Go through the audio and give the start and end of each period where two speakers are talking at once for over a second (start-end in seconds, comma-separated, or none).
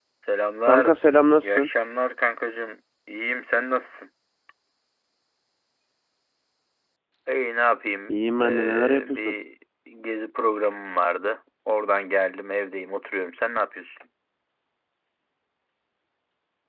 8.1-9.3